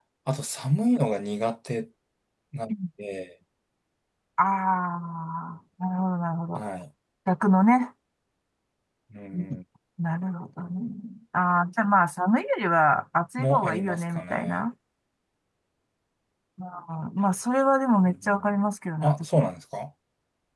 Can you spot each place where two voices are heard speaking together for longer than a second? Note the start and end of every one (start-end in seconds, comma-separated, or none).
13.4-14.6